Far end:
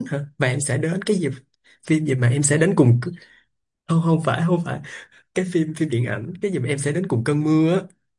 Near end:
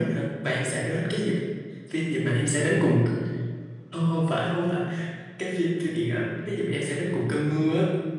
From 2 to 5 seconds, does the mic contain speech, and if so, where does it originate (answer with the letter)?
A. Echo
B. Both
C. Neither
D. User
A